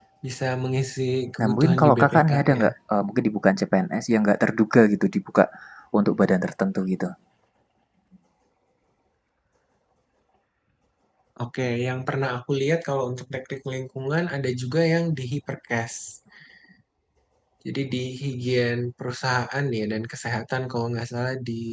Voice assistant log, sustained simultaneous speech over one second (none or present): present